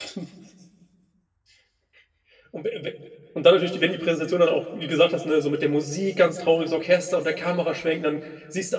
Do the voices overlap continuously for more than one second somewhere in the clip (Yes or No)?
No